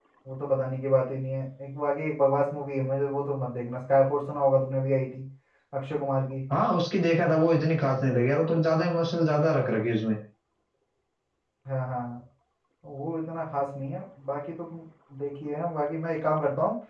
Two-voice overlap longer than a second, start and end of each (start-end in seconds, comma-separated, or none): none